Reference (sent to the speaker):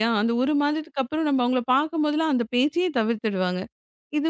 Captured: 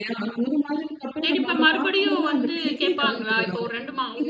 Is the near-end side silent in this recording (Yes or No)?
No